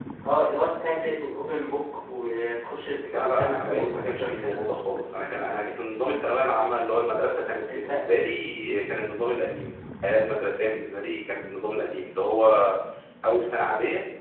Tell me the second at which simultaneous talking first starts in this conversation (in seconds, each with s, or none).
3.1 s